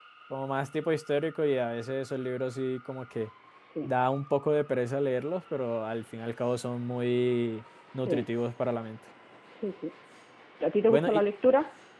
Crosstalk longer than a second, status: none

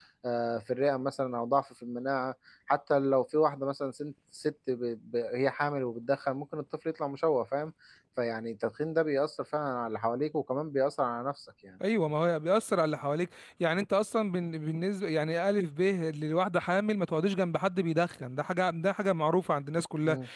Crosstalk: none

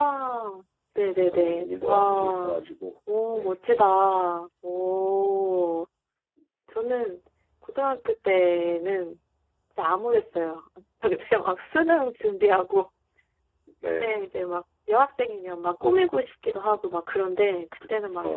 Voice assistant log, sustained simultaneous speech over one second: present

